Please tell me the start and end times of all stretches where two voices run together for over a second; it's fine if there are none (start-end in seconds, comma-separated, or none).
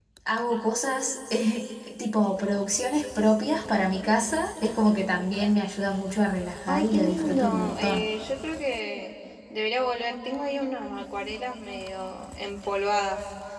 6.7-8.1